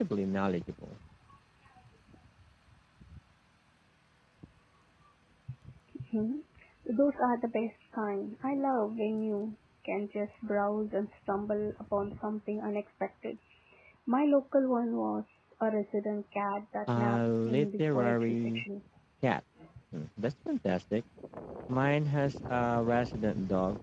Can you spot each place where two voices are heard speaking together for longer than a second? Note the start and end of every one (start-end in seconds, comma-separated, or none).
16.9-18.6